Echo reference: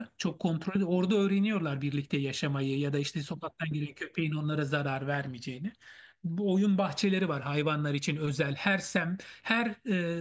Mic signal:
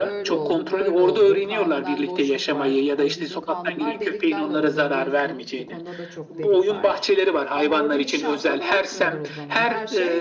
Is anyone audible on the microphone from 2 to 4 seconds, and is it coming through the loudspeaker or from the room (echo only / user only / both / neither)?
both